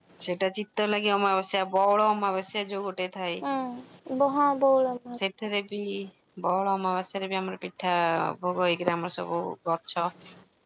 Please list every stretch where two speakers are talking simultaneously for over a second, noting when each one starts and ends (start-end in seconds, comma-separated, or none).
none